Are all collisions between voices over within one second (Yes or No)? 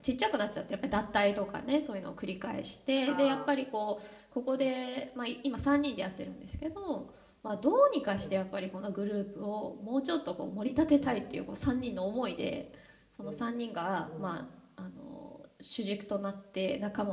Yes